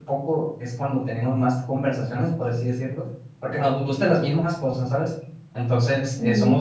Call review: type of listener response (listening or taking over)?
listening